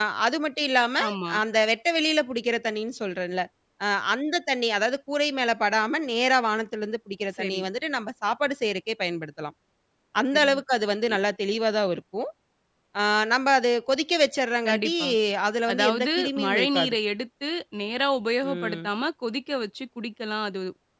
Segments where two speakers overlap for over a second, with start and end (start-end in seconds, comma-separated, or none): 15.7-16.9